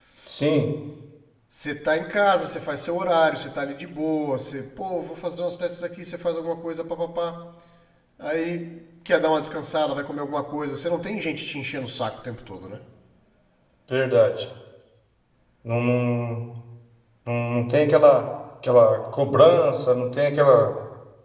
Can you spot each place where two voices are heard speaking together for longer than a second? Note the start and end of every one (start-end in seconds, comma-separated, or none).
none